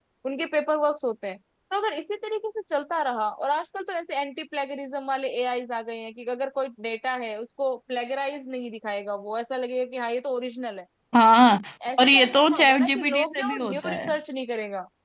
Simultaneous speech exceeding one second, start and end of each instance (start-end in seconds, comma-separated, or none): 12.0-14.1